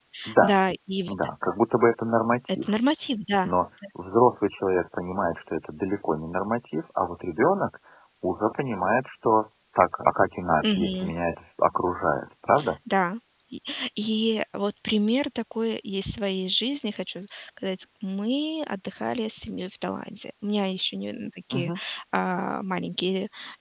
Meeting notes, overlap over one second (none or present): none